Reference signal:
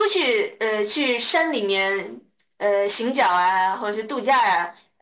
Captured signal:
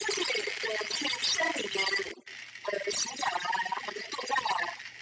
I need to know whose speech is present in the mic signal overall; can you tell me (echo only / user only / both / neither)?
echo only